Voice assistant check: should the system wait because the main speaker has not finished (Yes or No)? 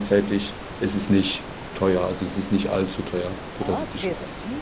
No